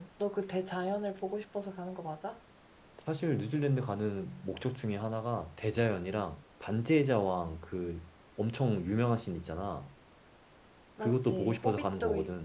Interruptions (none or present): present